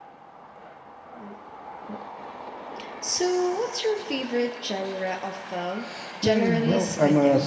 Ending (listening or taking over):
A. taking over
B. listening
A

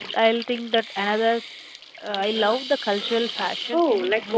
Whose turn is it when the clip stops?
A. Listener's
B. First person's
A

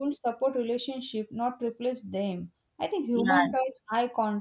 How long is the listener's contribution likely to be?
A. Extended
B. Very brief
B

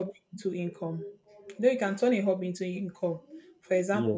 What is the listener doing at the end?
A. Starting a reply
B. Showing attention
B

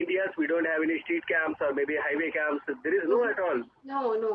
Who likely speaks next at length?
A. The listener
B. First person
A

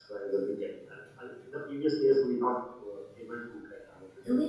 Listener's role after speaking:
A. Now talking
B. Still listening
A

